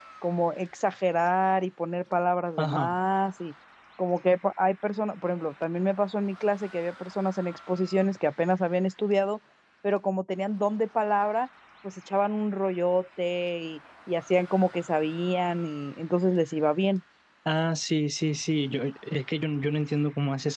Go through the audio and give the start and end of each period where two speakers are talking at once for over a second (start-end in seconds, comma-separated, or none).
none